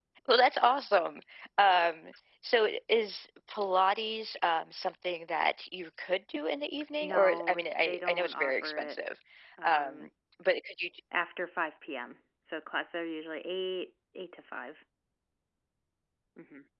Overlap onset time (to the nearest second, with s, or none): 7 s